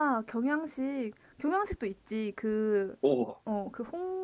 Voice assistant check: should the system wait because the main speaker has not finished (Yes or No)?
Yes